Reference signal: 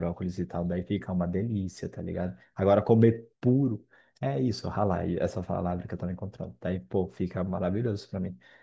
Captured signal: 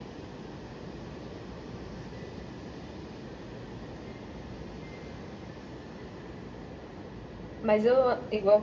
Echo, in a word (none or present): none